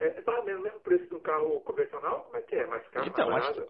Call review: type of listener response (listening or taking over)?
taking over